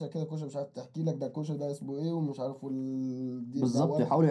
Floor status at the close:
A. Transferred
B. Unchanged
A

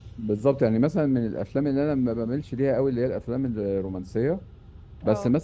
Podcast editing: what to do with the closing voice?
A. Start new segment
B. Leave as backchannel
B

